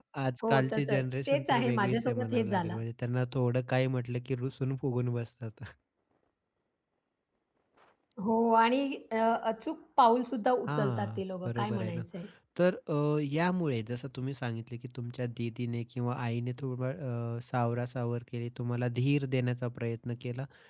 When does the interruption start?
0.5 s

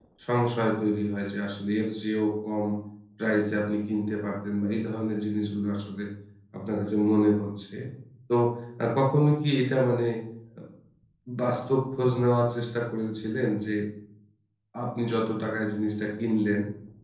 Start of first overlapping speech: none

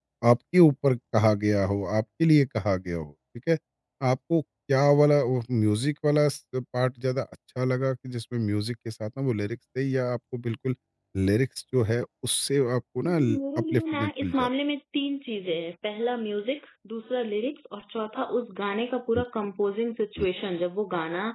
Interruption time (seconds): 13.0 s

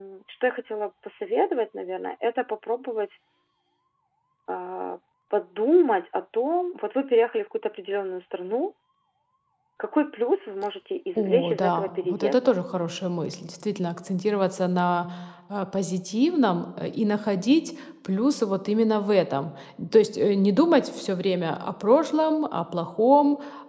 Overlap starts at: 11.2 s

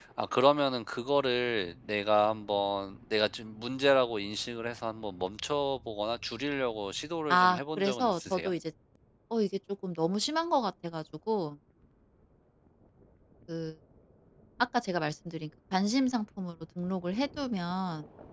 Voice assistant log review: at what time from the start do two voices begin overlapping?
7.3 s

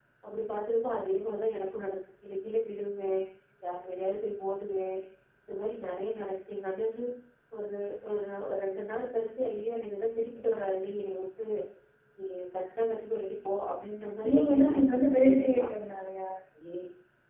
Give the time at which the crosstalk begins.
14.2 s

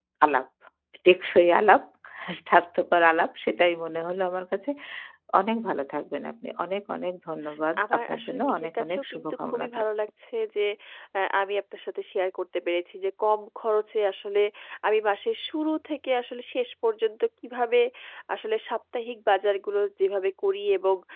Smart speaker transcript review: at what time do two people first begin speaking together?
7.8 s

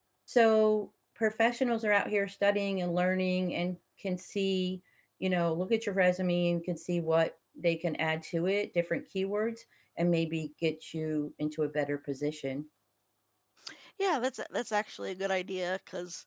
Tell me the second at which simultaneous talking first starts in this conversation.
none

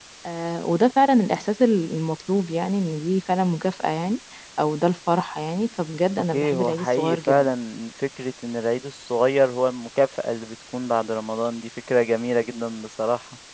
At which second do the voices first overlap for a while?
6.3 s

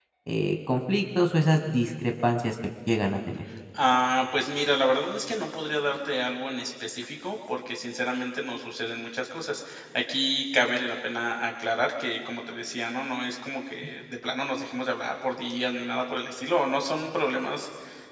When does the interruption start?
none

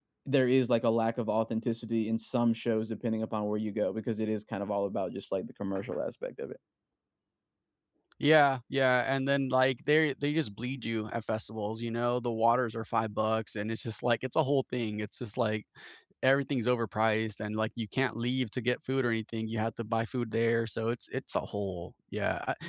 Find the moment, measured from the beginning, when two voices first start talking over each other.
none

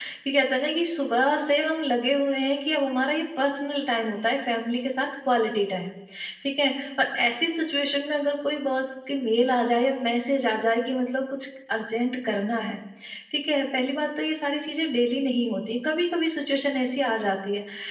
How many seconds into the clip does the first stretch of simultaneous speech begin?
none

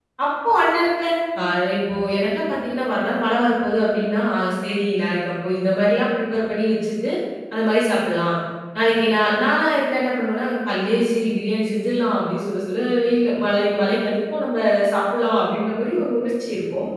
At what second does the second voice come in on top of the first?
none

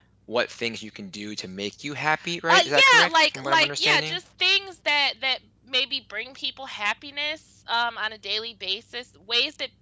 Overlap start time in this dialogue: 2.5 s

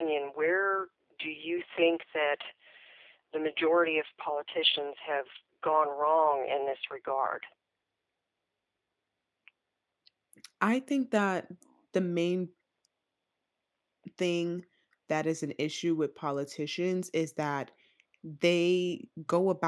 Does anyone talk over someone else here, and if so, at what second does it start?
none

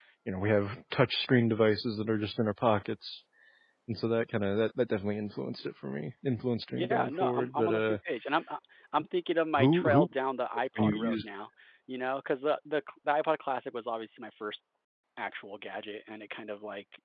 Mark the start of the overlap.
6.7 s

